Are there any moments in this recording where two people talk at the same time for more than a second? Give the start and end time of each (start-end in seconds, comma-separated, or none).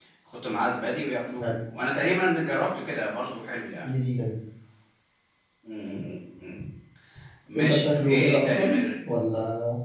7.6-8.8